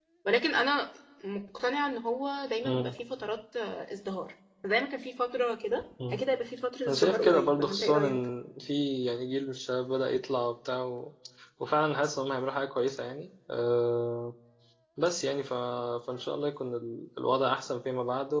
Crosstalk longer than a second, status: present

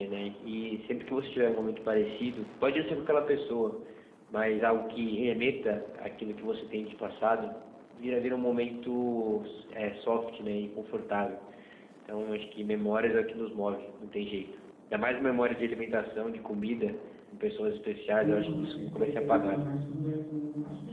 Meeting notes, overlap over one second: present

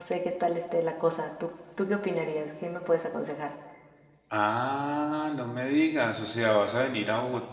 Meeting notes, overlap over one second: none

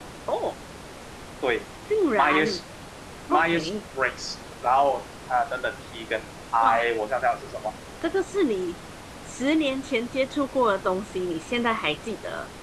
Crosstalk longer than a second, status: none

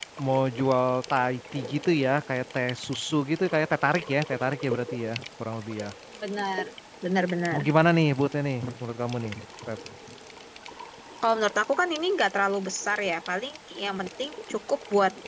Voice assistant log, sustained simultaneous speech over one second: none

